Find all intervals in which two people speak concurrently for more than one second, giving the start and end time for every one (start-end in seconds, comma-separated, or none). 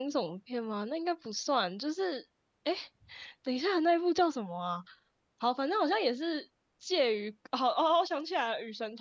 none